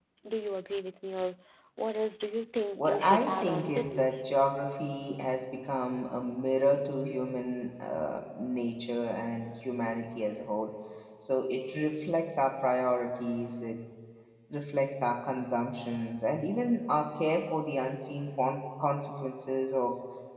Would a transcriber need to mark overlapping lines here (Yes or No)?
Yes